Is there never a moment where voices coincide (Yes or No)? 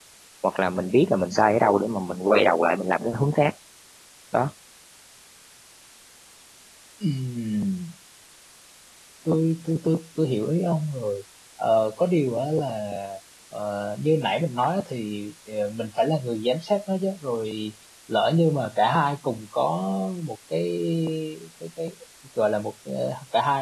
Yes